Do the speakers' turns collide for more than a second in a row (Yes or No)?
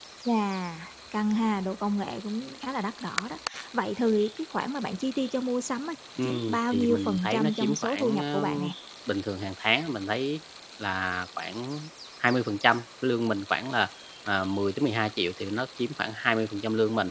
Yes